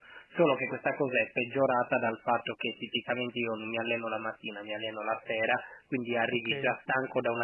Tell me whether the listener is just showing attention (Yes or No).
Yes